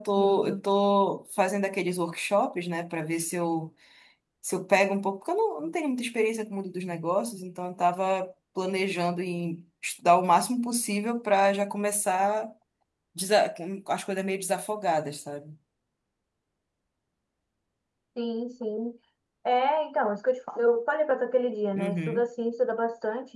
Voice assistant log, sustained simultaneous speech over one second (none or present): none